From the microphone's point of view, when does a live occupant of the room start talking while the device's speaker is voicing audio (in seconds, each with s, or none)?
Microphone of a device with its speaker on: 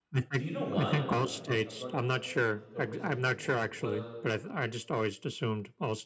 0.3 s